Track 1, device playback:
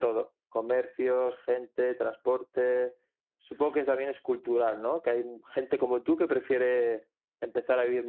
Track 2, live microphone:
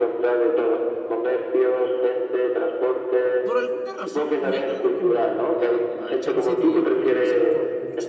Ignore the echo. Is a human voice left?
Yes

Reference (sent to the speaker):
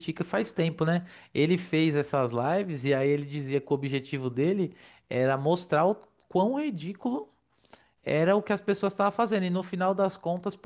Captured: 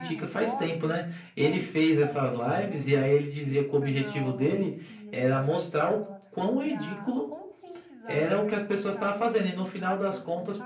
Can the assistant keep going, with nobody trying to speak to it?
No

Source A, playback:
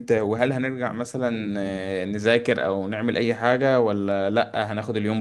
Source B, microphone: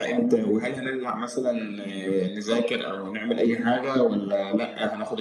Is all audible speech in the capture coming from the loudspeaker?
Yes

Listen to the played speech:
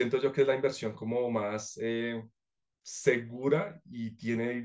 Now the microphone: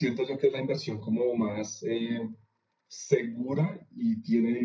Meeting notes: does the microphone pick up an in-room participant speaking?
No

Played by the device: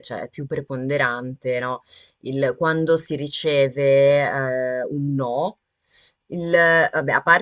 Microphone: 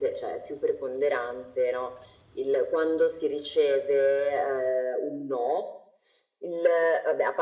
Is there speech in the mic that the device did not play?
No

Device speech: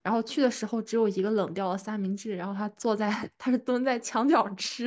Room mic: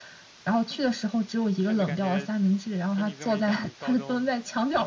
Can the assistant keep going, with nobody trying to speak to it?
No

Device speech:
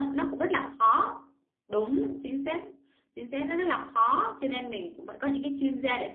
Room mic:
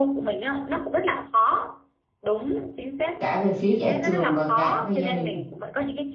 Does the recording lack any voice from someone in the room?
No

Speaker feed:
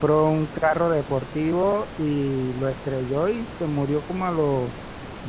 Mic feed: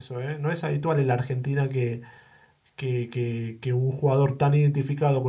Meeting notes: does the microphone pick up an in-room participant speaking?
Yes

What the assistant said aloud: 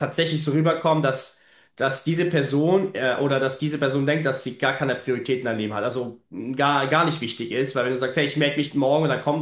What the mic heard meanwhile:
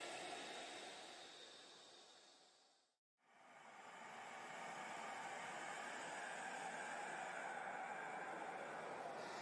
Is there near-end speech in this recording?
No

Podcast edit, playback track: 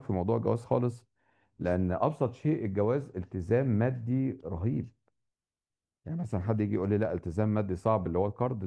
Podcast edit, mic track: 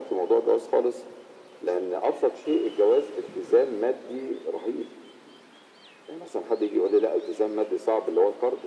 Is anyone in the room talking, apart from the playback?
No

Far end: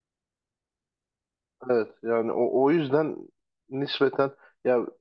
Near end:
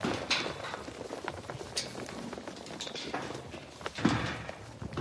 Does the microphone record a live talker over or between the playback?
No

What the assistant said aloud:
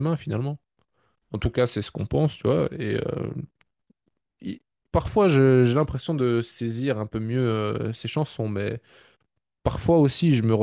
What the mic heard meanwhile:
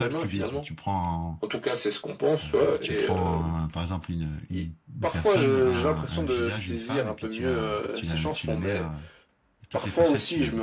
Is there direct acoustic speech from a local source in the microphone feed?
Yes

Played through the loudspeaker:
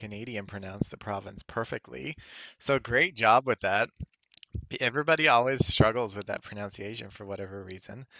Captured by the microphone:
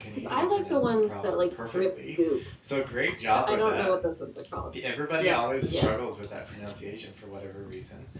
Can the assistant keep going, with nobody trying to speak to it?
No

